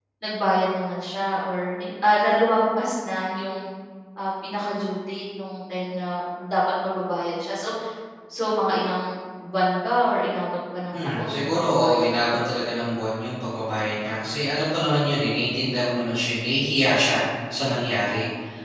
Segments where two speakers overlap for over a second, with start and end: 11.0-12.4

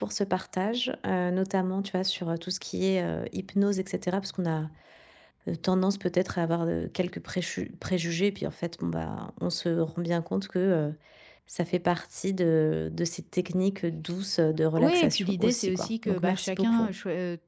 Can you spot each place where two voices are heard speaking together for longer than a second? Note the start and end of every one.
14.8-16.9

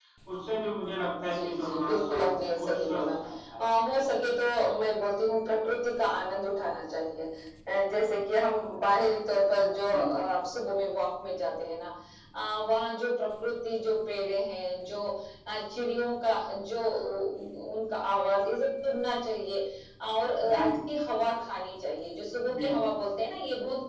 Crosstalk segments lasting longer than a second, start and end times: 1.2-3.0

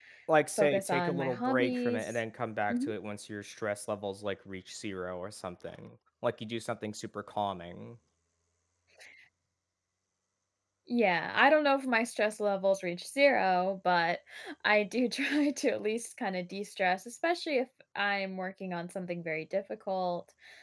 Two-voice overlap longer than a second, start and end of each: 0.6-2.2

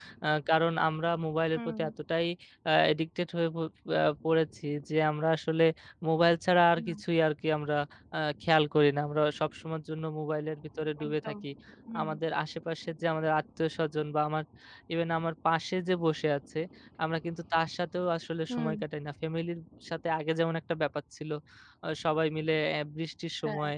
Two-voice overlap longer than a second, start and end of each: none

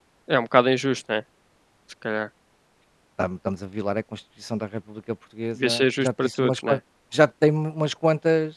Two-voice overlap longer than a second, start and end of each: 5.5-6.8

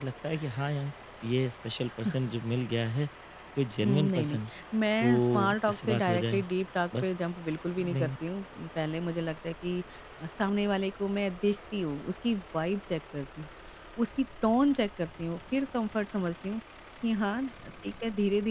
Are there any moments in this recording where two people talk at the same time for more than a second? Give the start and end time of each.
5.0-6.4

